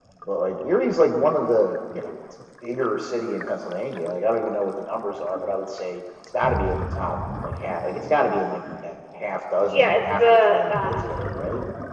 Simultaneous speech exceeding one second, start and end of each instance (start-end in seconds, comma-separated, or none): 9.7-11.1